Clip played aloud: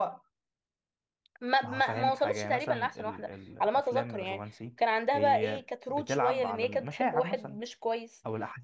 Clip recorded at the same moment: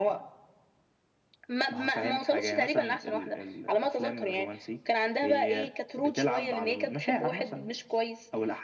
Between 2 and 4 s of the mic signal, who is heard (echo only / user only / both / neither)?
echo only